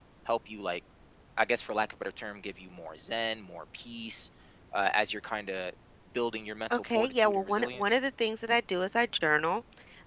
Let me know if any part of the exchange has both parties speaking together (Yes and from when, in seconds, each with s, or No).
Yes, from 6.7 s